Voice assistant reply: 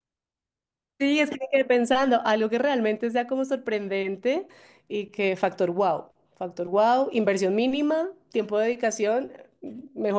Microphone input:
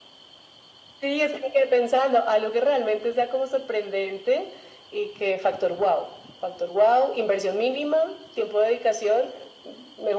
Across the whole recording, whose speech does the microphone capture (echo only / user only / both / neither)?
echo only